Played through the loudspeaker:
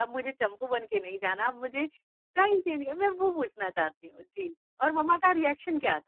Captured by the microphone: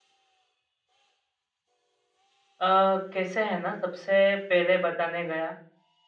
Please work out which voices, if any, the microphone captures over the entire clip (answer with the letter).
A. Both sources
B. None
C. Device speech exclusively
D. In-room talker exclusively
D